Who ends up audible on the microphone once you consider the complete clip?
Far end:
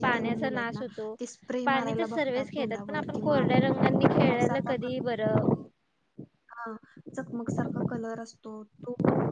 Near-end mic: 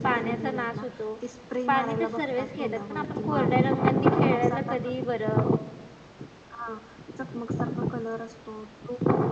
echo only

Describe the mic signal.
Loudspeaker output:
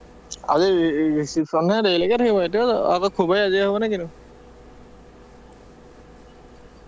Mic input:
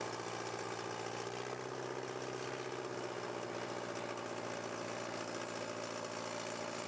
neither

